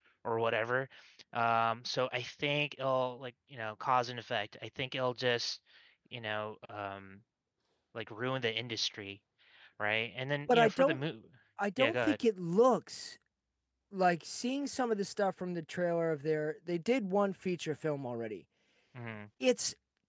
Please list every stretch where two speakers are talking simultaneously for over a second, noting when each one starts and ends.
none

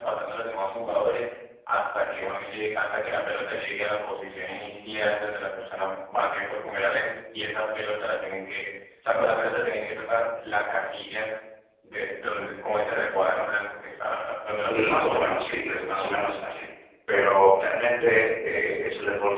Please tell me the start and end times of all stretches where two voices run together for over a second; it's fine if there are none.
14.7-16.3

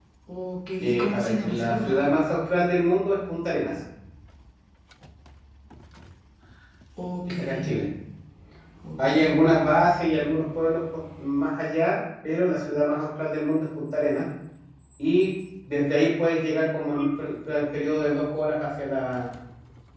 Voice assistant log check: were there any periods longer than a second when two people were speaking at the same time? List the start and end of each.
0.8-2.1

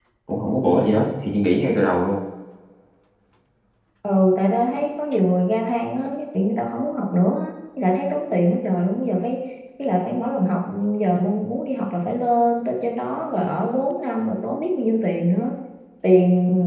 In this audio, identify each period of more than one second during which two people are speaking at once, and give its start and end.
none

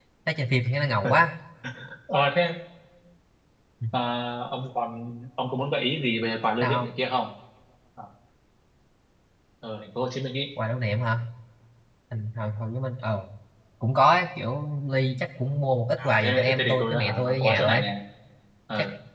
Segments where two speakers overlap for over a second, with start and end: 16.0-17.9

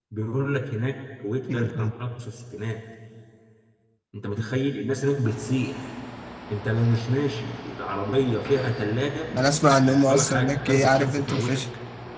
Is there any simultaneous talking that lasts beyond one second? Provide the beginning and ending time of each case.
9.7-11.6

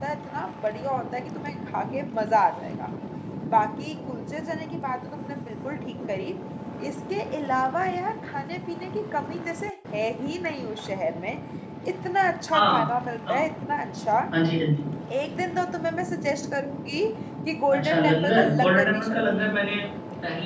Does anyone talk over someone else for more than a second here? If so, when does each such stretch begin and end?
17.7-19.4

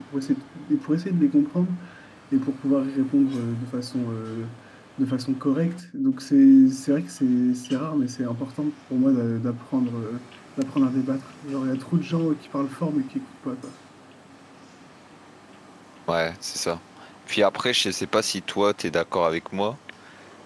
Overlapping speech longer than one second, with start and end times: none

